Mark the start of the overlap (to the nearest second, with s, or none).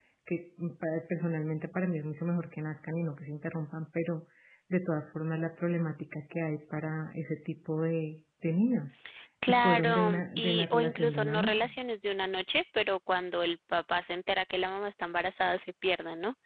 9 s